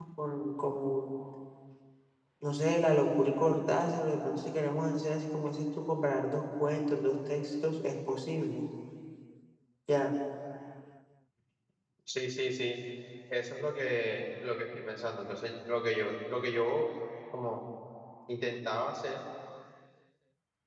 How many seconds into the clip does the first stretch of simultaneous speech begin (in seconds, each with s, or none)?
none